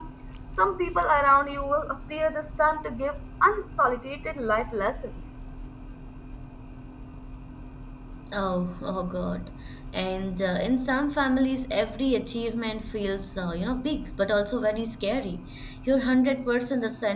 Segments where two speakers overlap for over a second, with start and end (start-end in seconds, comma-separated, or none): none